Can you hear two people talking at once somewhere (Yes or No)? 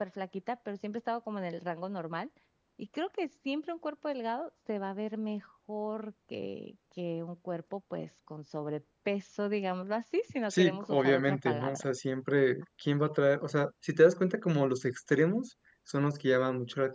Yes